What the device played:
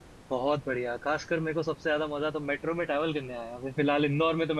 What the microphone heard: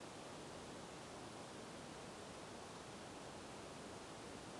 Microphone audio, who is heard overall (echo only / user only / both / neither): neither